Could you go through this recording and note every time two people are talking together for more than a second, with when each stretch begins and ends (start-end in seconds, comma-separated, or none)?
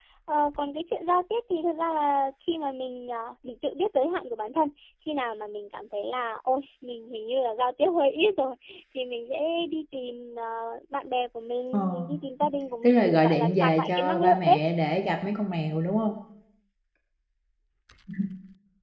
12.8-14.6